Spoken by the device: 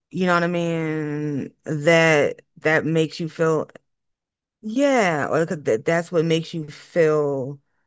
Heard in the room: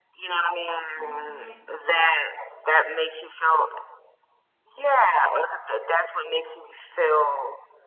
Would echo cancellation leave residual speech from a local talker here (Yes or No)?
Yes